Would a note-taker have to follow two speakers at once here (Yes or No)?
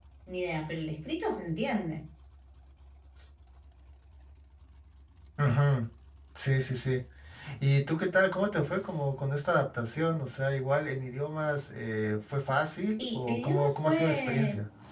Yes